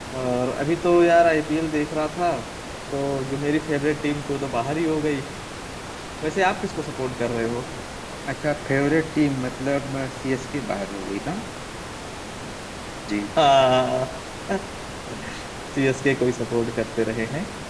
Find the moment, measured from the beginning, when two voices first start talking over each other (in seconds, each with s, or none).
none